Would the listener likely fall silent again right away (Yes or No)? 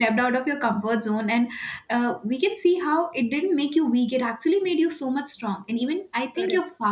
Yes